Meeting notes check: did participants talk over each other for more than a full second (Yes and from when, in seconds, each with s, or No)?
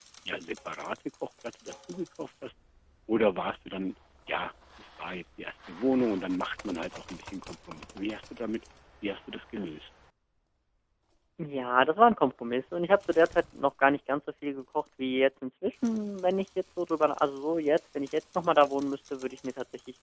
No